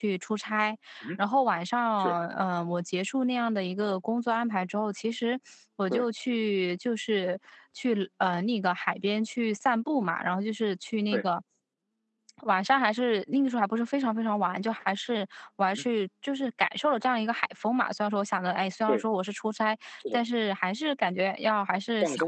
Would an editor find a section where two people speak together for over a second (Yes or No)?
No